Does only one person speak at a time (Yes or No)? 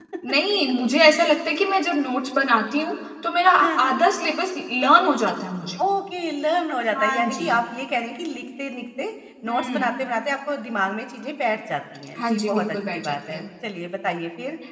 No